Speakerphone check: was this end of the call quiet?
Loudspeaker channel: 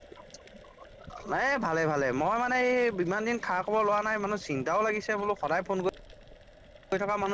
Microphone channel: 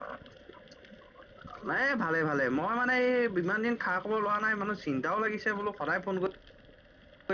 Yes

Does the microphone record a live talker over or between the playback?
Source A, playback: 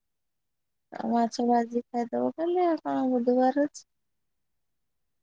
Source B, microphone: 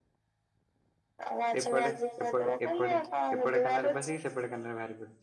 Yes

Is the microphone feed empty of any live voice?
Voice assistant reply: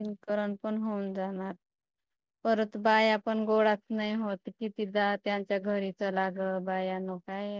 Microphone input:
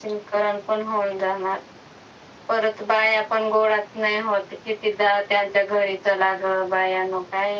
Yes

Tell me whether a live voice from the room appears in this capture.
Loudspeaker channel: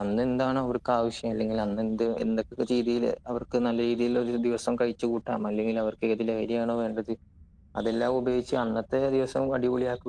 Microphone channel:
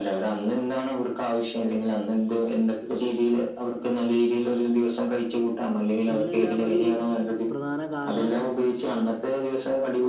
Yes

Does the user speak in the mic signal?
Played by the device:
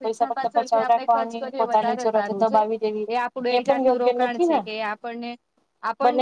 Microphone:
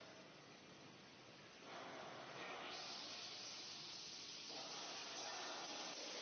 No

